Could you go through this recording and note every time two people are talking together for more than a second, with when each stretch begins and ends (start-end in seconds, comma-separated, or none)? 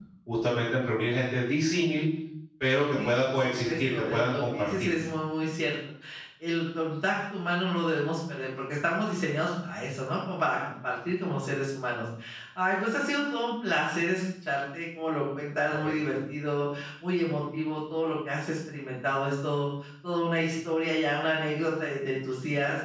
3.0-4.9